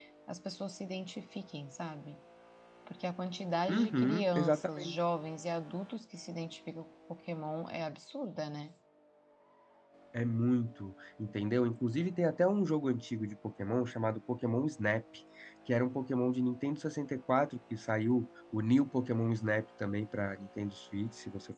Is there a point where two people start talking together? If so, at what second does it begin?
4 s

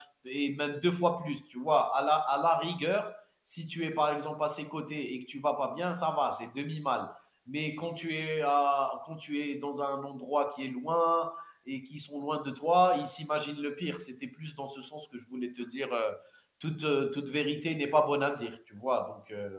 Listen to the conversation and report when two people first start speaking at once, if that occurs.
none

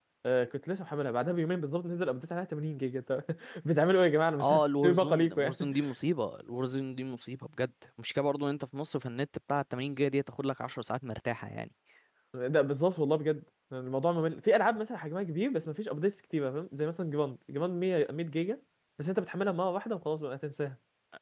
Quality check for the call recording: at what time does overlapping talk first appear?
4 s

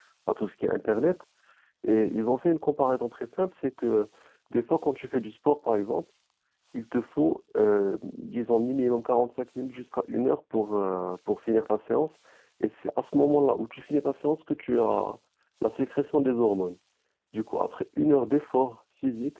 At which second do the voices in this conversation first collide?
none

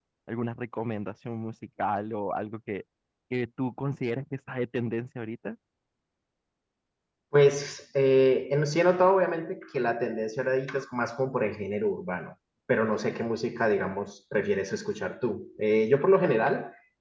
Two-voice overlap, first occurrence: none

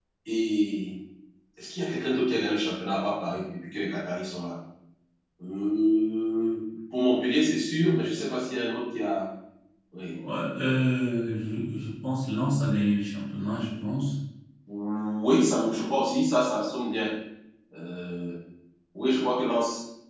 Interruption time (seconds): none

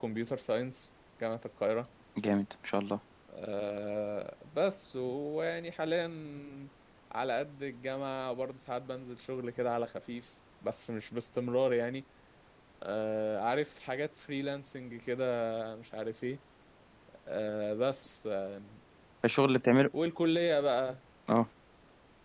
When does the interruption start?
none

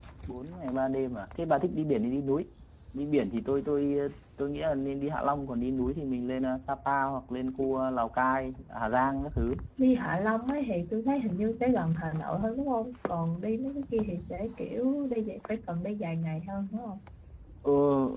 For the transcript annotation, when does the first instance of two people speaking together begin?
none

